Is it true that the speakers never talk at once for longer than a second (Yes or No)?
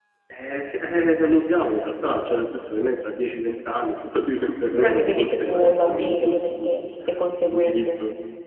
No